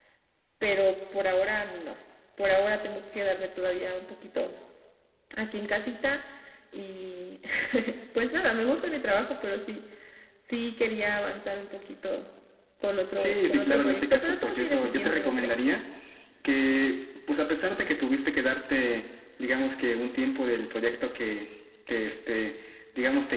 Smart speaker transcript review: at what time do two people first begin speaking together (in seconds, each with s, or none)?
13.2 s